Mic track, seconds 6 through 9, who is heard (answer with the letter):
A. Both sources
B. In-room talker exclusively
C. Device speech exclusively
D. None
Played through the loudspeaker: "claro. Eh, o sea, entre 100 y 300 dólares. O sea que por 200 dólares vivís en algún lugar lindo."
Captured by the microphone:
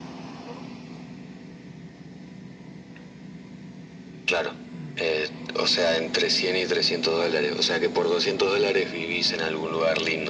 C